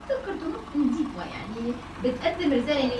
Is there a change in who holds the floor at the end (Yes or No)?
No